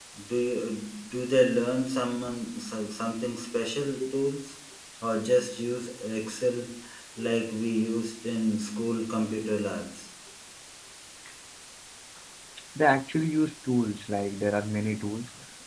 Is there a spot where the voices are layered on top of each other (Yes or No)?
No